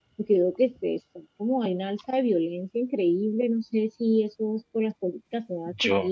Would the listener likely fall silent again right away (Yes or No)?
Yes